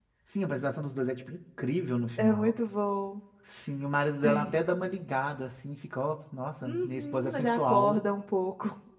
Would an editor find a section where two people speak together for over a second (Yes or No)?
Yes